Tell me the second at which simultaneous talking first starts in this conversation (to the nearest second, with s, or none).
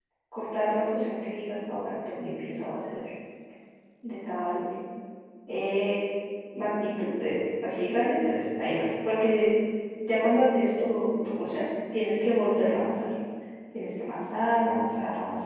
none